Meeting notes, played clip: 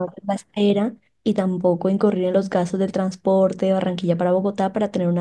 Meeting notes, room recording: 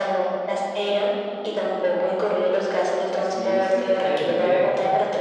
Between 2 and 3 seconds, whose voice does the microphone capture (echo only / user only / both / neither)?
echo only